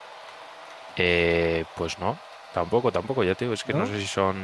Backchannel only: Yes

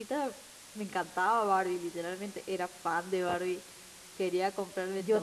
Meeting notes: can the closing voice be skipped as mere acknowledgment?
Yes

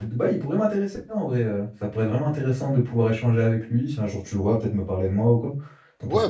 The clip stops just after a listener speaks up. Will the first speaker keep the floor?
No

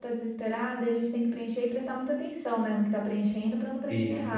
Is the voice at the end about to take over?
No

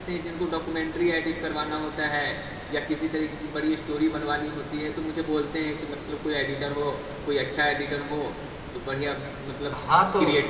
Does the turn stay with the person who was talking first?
No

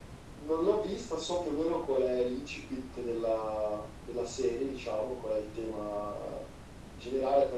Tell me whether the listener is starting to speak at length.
No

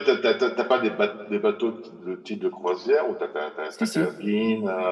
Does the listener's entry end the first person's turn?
No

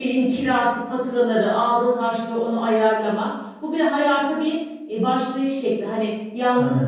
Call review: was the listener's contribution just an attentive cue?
Yes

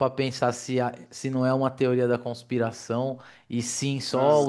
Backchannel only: Yes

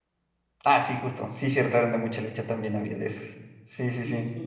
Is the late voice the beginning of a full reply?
Yes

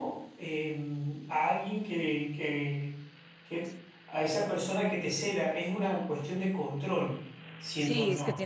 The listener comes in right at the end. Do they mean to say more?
Yes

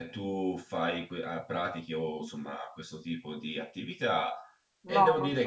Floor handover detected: Yes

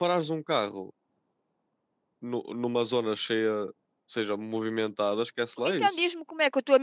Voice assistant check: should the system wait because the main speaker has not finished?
No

